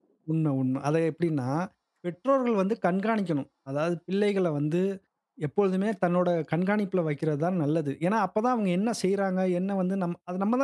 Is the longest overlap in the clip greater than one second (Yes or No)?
No